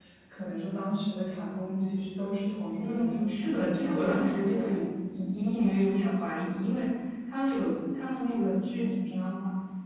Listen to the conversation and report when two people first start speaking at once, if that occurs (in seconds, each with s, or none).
2.8 s